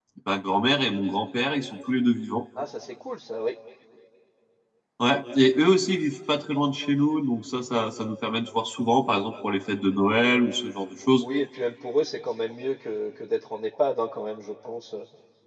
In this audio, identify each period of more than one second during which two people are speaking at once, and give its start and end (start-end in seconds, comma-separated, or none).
none